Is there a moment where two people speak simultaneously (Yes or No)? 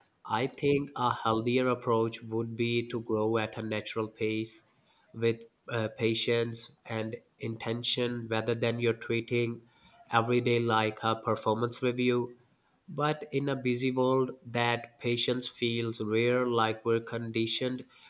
No